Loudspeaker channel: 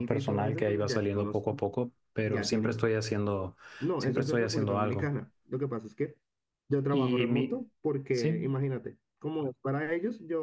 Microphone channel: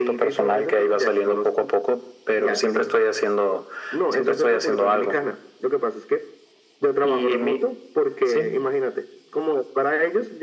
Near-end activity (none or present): none